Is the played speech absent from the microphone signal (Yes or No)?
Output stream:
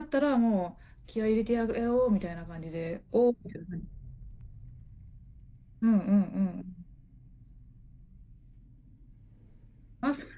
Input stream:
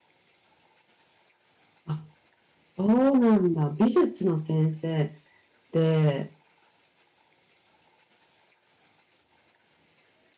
Yes